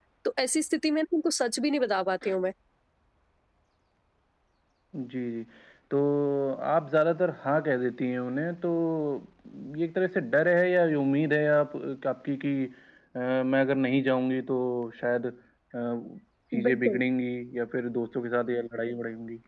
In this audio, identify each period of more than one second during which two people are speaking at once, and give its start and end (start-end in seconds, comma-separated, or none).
none